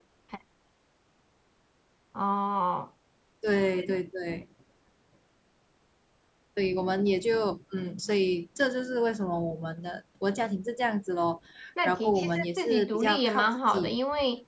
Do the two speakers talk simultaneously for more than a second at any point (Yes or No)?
Yes